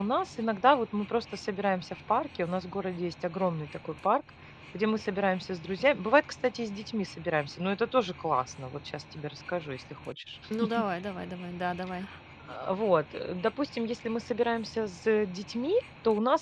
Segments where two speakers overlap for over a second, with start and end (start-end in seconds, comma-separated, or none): none